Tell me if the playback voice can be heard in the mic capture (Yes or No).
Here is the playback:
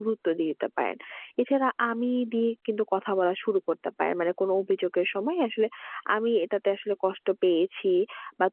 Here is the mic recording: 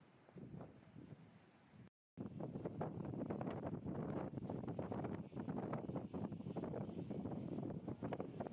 No